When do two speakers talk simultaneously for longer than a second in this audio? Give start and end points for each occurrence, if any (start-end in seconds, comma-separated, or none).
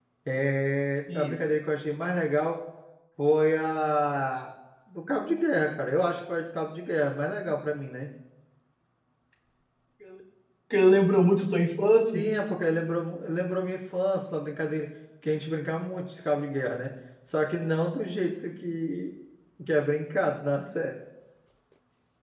none